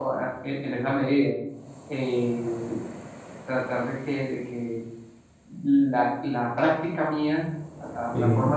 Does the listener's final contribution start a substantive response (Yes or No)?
No